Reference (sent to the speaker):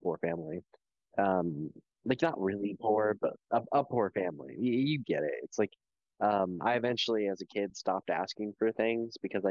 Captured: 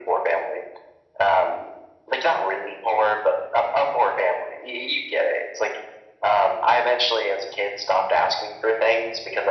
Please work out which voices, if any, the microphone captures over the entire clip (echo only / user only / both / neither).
echo only